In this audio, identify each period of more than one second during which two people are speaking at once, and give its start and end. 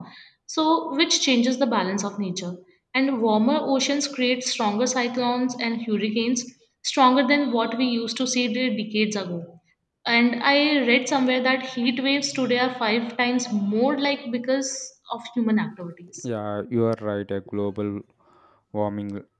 none

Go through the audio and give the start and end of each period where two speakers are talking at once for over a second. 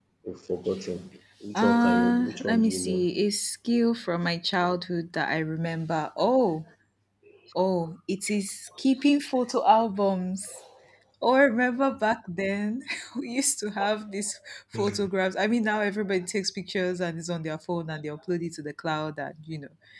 1.6-3.1

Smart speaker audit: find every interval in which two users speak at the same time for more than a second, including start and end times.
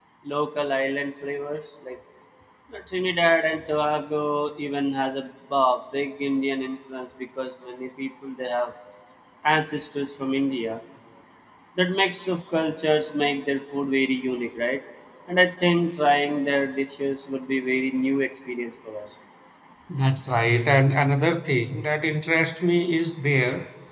none

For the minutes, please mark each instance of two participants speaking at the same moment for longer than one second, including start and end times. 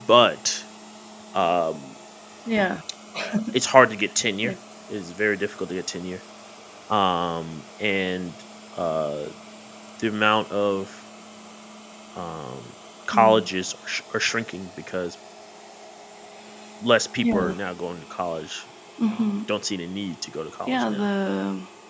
none

